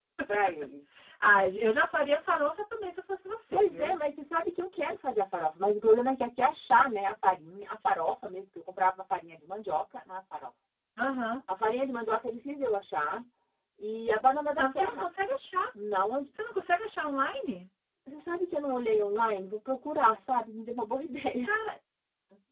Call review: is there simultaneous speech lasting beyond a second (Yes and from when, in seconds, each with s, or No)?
No